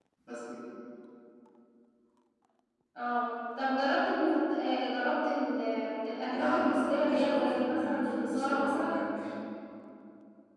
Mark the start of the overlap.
6.3 s

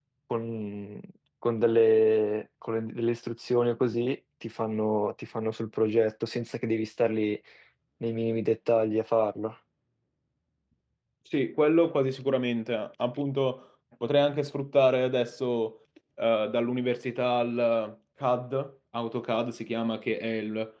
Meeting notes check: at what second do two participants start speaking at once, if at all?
none

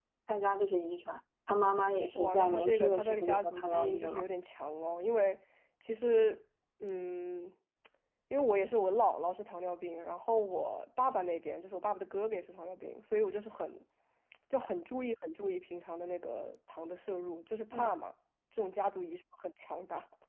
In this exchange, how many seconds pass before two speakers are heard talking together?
2.1 s

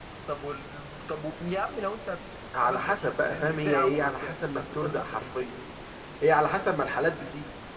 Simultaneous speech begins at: 2.6 s

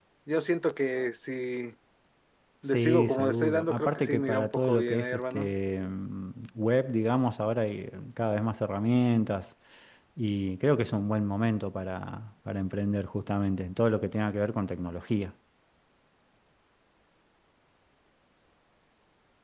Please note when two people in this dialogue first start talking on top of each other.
2.6 s

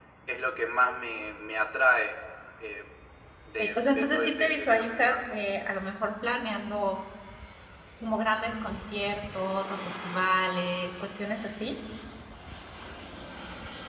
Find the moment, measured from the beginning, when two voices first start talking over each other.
3.6 s

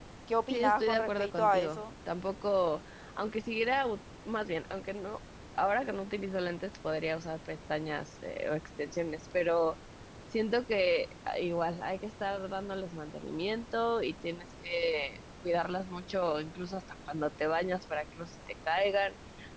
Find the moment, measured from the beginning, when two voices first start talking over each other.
0.5 s

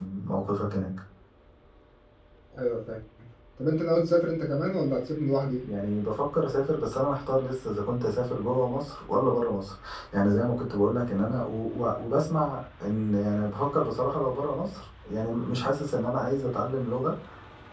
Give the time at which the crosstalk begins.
none

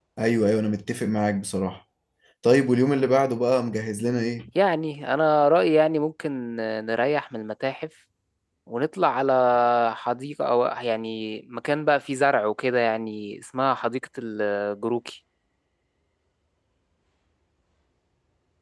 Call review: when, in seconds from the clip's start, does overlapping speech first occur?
none

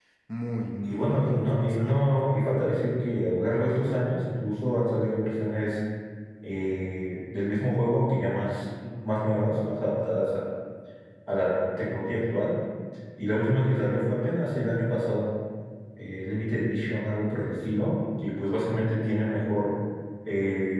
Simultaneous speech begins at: 0.9 s

